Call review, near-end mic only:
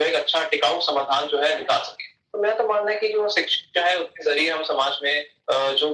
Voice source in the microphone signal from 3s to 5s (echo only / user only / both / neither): echo only